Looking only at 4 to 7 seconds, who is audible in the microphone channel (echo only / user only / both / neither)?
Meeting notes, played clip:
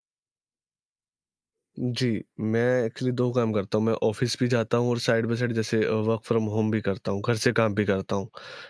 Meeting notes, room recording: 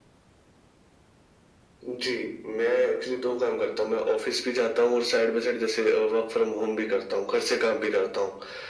echo only